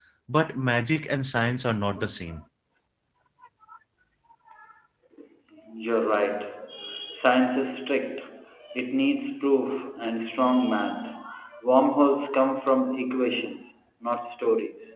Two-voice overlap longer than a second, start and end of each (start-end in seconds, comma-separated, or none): none